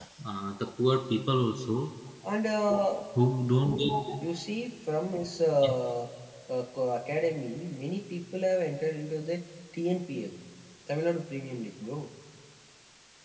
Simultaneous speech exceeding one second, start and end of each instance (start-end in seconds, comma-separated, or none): none